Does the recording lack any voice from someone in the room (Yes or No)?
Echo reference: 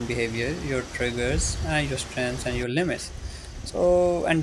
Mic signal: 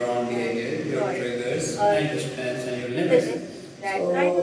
No